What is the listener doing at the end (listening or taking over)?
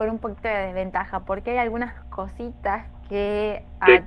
listening